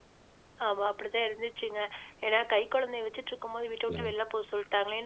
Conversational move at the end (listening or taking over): listening